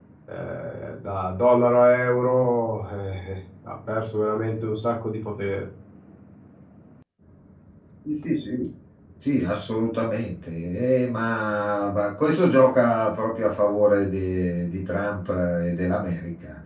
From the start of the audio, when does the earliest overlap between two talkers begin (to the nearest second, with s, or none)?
none